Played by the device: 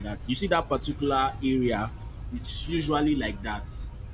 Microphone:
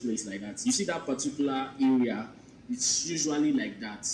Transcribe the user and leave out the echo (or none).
none